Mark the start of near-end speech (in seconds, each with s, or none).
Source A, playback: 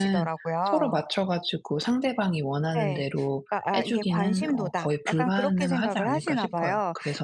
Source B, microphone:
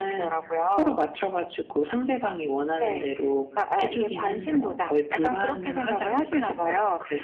none